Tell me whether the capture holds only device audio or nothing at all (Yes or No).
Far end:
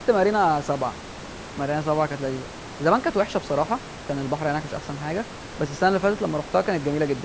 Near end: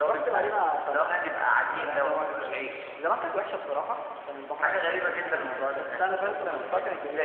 No